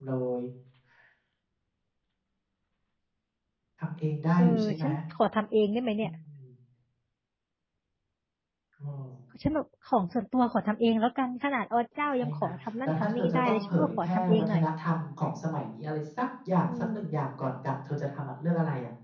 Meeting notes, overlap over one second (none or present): present